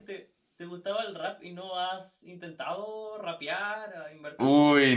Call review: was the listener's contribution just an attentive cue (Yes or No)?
No